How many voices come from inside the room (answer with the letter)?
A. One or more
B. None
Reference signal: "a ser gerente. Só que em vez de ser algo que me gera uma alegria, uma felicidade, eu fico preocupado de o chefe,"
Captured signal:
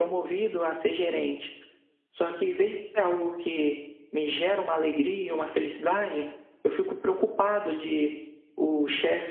B